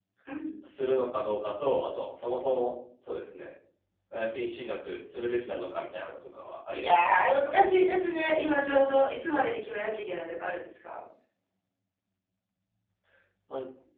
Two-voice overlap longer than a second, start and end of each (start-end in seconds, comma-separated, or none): 6.7-8.0